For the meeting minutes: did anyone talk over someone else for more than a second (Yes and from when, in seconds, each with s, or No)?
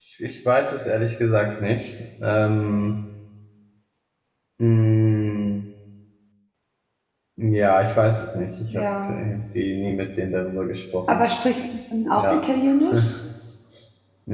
No